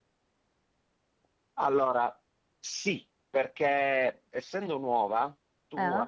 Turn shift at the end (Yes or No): No